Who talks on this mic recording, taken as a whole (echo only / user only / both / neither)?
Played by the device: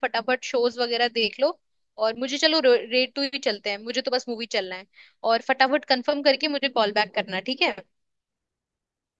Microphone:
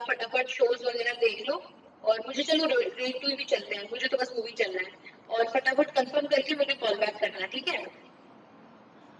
echo only